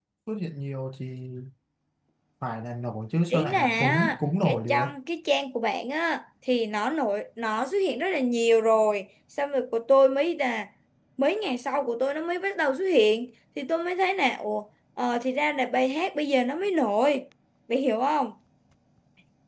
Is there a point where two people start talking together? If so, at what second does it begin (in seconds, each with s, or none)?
3.3 s